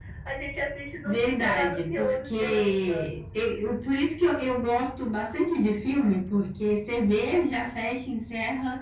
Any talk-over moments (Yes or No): Yes